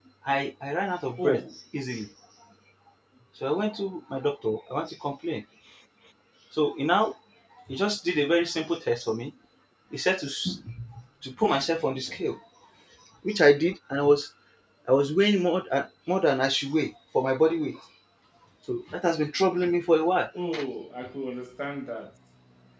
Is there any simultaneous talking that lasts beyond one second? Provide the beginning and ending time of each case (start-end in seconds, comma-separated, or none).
none